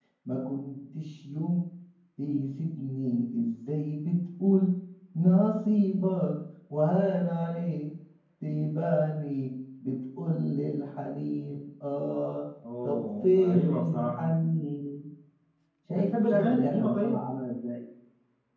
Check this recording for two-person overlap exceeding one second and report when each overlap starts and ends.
12.8-14.2, 15.9-17.2

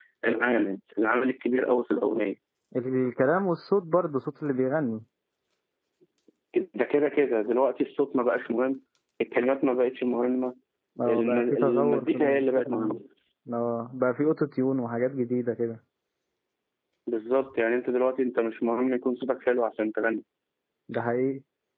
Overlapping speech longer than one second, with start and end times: 11.1-13.0

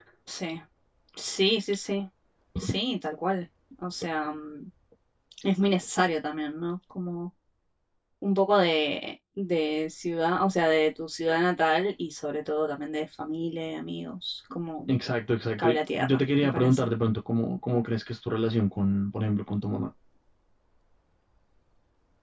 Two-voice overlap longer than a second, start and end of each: 15.6-16.9

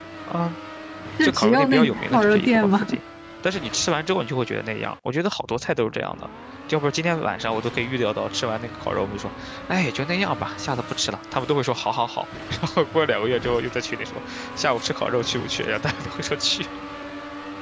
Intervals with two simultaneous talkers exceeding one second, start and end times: 1.2-2.9

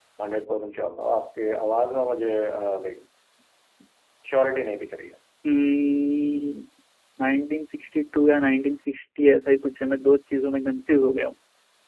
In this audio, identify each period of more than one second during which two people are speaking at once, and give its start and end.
none

